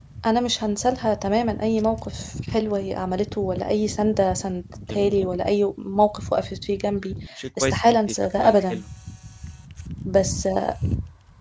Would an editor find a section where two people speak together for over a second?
Yes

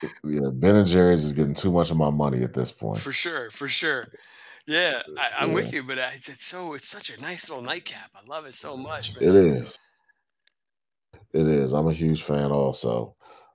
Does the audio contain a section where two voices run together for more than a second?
No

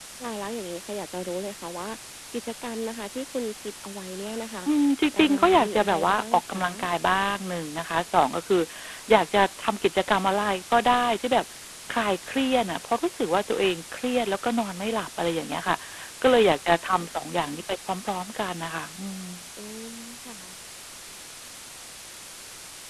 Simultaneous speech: Yes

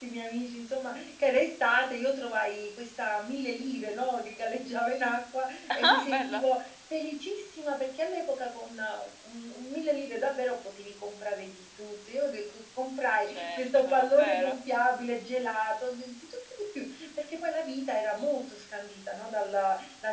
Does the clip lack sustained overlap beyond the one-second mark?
No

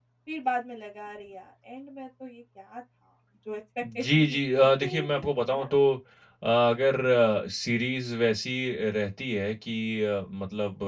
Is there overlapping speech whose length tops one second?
Yes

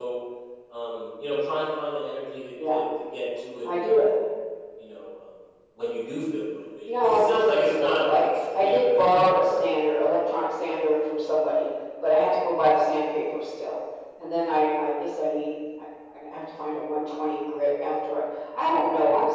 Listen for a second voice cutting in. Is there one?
Yes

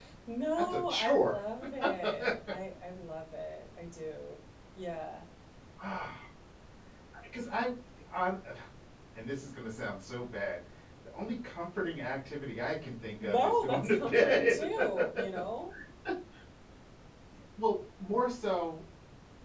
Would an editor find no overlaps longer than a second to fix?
No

